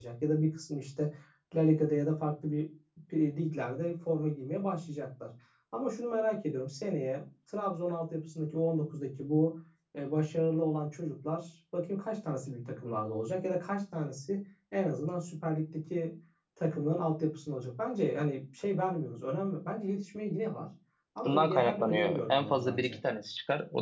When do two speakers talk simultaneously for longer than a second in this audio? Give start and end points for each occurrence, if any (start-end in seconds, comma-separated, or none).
21.3-22.9